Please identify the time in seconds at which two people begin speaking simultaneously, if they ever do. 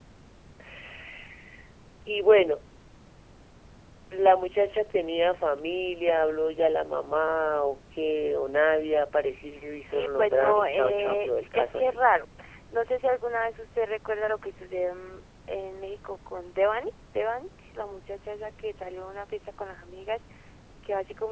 9.9 s

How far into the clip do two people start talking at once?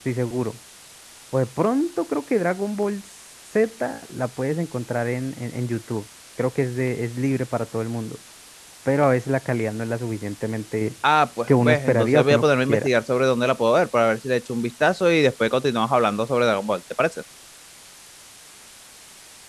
11.5 s

